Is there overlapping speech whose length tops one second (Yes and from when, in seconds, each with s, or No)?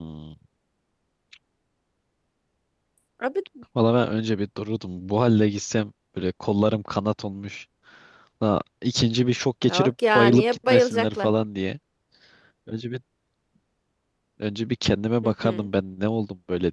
Yes, from 9.6 s